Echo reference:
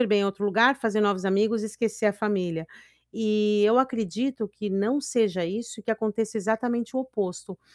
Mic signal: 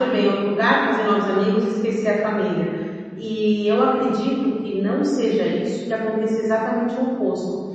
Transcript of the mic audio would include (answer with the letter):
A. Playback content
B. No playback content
A